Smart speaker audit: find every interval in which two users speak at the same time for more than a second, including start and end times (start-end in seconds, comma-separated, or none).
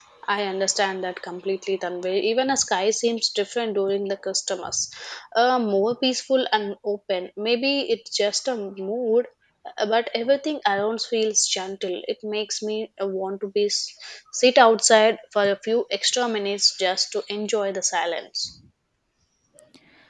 none